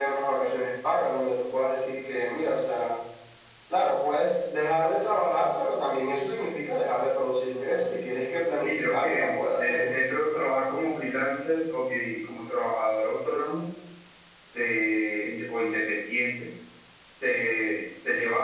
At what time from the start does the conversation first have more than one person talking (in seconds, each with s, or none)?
8.6 s